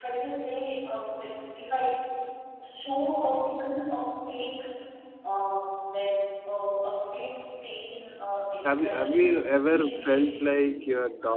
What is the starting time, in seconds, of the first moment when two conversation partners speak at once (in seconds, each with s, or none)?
8.6 s